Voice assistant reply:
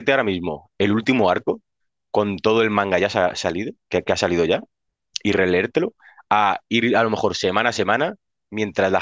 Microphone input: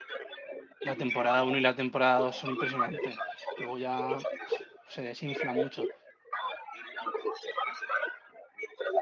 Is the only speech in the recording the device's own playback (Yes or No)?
No